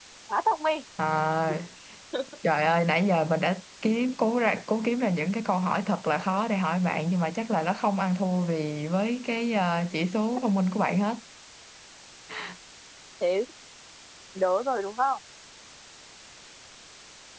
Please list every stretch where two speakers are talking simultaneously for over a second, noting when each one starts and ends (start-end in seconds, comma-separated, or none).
none